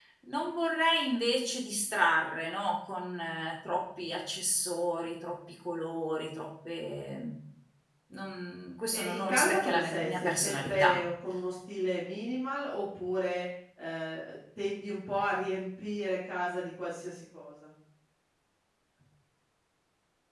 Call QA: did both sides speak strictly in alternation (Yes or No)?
No